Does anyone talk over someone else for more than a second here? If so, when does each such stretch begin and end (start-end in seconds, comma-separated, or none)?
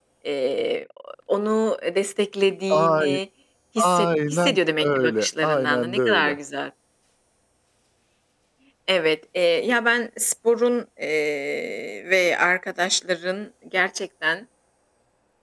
3.8-6.4